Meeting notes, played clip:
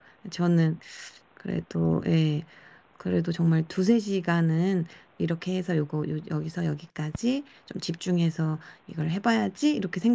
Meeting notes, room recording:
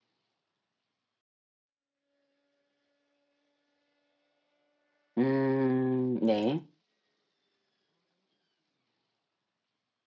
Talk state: user only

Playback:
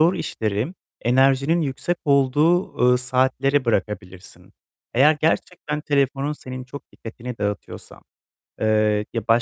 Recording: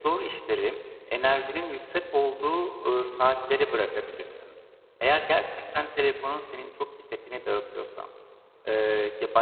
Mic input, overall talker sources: echo only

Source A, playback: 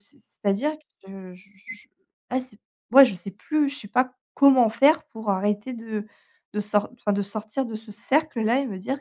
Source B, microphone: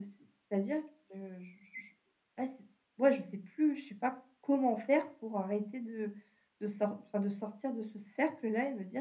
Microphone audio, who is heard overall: echo only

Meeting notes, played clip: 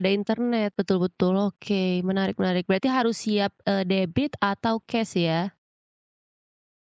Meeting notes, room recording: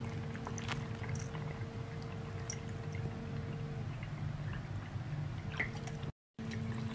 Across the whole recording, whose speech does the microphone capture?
neither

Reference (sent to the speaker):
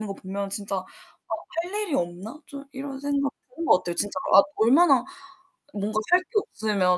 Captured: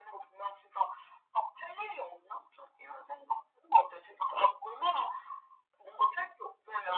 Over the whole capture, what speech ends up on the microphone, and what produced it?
echo only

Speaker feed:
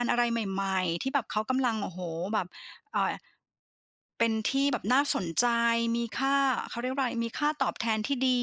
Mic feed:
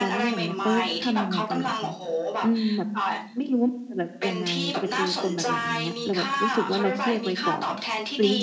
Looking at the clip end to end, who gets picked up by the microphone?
both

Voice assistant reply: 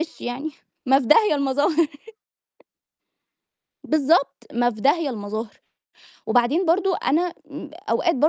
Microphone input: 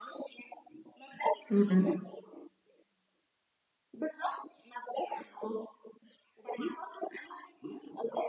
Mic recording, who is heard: both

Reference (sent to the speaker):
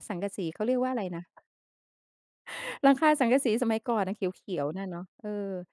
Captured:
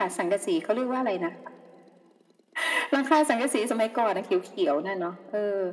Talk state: echo only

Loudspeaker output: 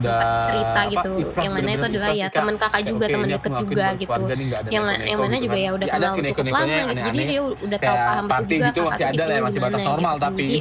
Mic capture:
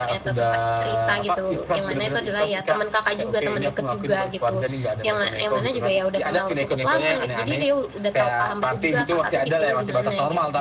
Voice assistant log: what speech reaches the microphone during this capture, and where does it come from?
echo only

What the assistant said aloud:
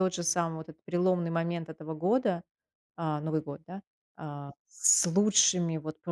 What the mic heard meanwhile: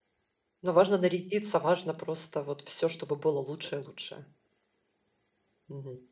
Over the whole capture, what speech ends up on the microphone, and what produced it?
user only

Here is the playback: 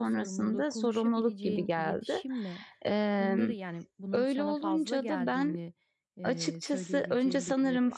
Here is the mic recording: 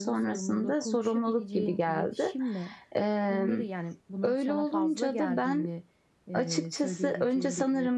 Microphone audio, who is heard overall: echo only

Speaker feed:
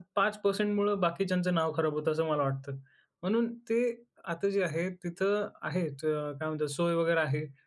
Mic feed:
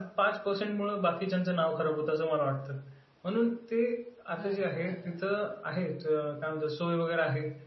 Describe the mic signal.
both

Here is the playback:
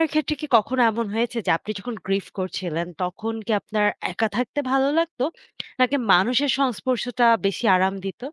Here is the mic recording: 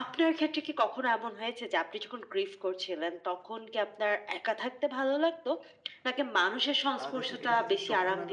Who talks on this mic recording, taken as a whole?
both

